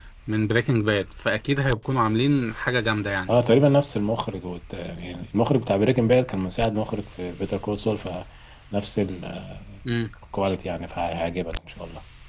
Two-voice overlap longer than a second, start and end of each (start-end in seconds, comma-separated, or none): none